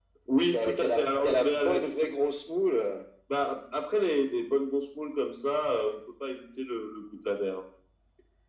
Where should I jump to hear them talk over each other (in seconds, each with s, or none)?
0.5 s